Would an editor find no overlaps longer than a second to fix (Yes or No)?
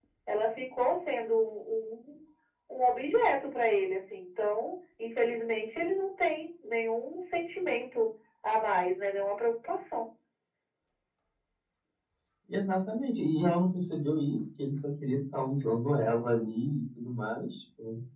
Yes